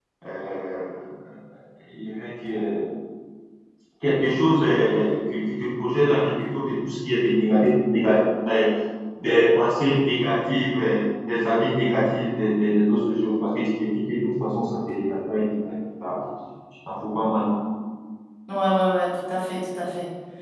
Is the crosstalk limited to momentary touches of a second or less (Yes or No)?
Yes